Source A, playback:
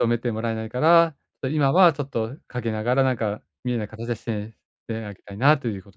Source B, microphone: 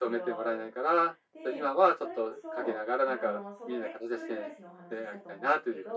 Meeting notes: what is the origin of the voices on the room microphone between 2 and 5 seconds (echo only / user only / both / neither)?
both